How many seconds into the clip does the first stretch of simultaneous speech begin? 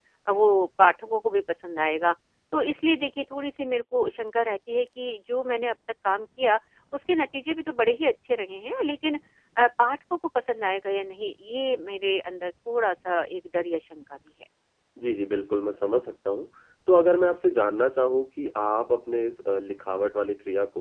none

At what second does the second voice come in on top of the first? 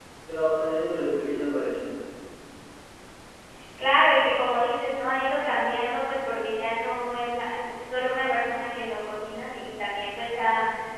none

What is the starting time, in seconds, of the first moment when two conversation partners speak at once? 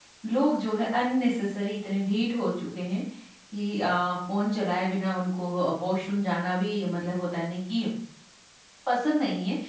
none

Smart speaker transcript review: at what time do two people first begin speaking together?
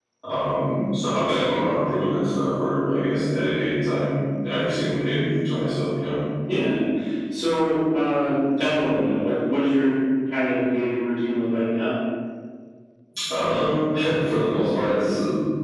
none

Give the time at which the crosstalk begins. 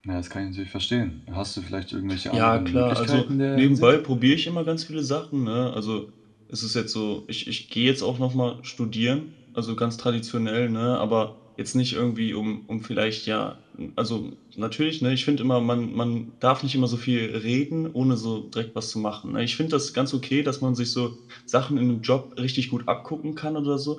2.1 s

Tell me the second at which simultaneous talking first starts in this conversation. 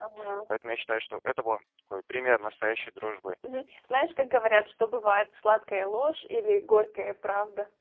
none

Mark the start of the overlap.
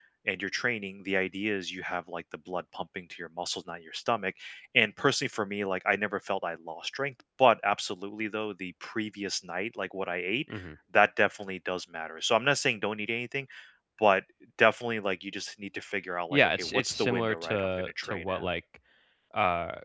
16.3 s

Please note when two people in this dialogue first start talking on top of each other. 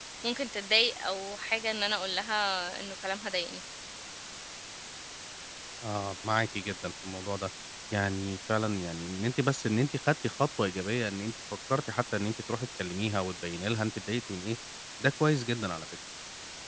none

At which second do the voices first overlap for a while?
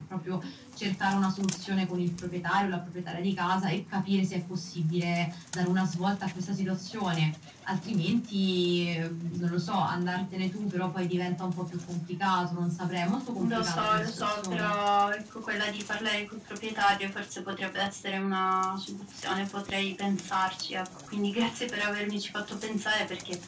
13.4 s

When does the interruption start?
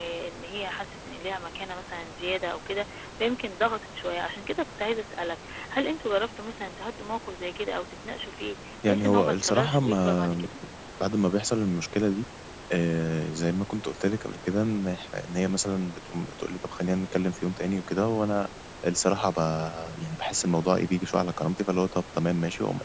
8.8 s

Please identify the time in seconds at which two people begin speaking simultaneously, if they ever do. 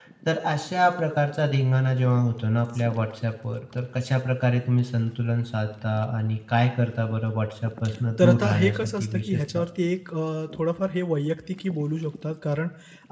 8.2 s

